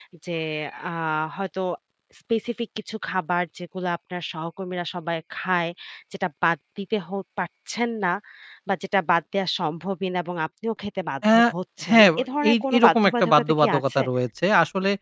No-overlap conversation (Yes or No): No